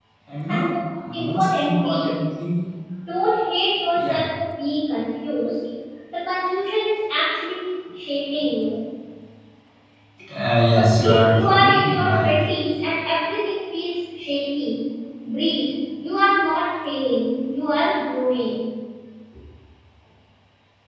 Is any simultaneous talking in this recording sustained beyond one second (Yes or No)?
Yes